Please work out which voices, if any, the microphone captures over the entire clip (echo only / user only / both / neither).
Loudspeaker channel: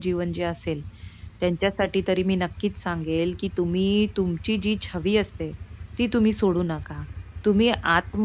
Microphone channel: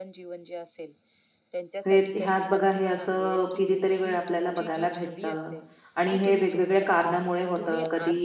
both